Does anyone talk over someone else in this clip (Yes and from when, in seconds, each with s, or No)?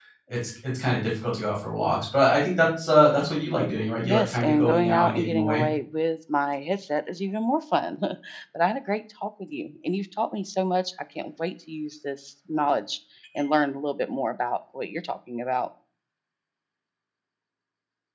Yes, from 4.0 s